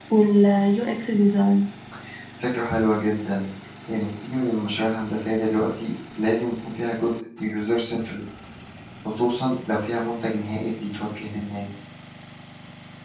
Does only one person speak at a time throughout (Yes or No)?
Yes